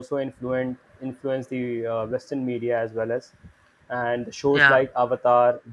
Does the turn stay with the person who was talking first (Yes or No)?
Yes